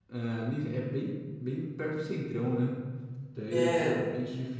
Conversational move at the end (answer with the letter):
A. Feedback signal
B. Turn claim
A